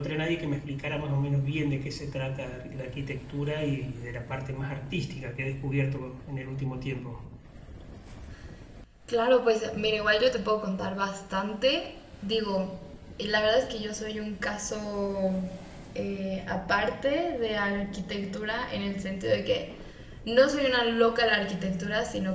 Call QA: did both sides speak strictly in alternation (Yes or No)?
Yes